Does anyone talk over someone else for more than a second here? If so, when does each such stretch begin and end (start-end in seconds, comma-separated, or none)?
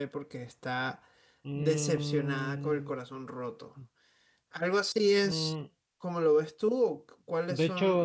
1.6-2.9